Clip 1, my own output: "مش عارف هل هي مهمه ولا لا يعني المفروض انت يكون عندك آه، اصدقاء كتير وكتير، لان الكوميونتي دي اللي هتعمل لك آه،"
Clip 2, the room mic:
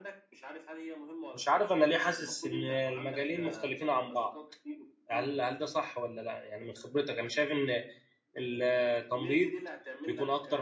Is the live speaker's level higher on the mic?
Yes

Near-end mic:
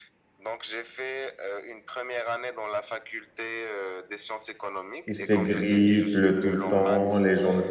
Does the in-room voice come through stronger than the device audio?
Yes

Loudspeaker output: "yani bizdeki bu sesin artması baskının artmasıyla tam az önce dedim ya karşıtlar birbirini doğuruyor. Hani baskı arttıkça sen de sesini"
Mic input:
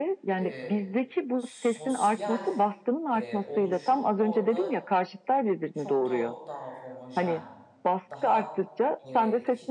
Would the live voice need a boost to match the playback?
Yes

